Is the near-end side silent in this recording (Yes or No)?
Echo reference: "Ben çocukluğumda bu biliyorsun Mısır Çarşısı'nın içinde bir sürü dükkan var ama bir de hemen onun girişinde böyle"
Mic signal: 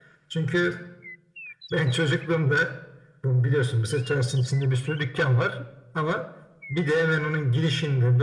Yes